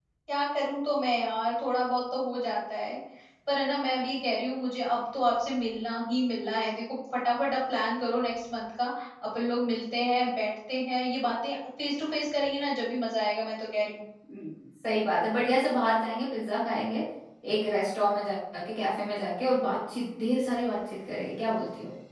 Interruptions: none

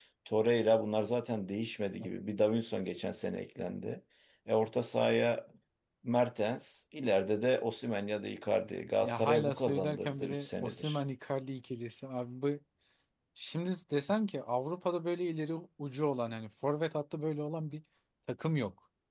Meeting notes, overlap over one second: present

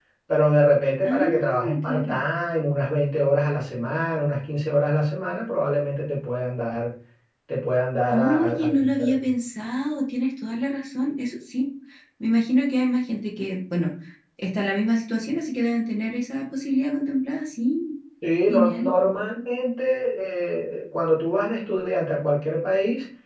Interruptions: present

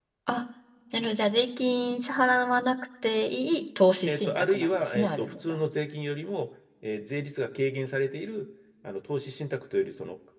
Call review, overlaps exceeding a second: present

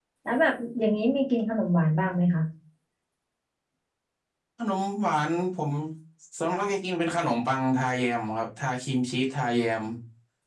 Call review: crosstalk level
none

